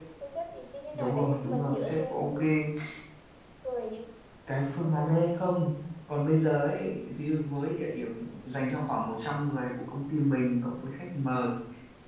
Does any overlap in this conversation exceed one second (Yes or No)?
Yes